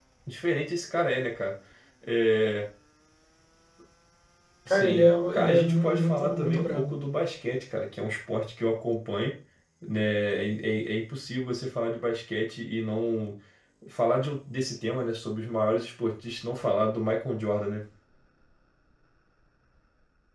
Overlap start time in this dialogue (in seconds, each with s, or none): 4.7 s